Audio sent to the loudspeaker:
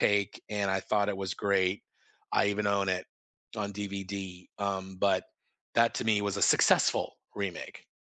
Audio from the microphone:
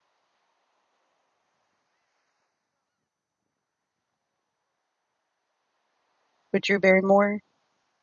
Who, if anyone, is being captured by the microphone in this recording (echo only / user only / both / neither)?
user only